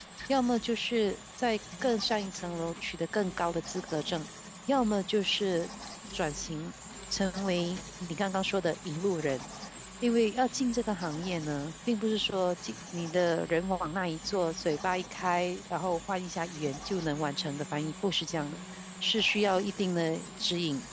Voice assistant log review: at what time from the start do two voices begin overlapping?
none

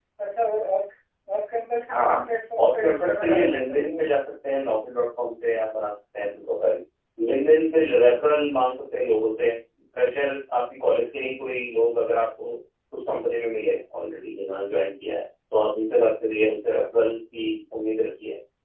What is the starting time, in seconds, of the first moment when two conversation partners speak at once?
2 s

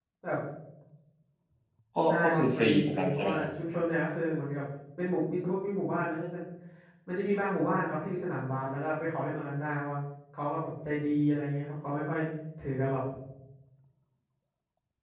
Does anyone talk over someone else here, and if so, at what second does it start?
2 s

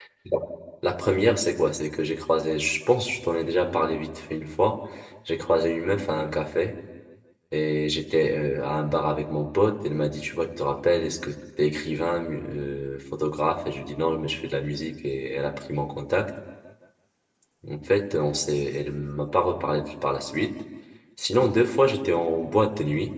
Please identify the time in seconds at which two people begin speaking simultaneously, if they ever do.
none

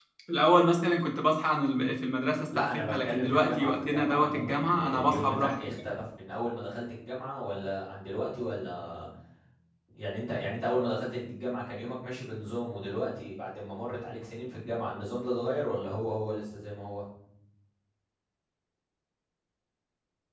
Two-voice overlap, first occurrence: 3 s

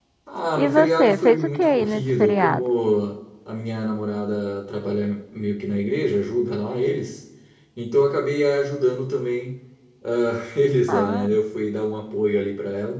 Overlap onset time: 1 s

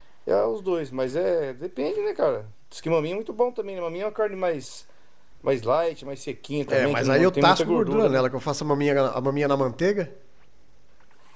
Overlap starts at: 7 s

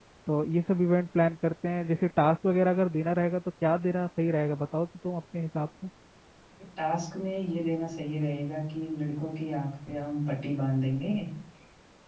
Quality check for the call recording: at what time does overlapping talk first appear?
none

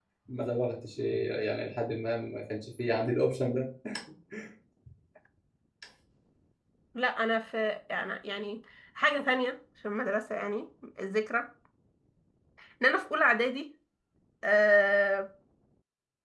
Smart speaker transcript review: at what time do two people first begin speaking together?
none

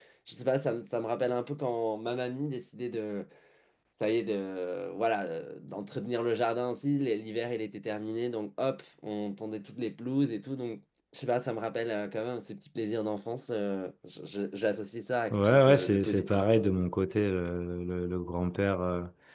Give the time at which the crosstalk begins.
15 s

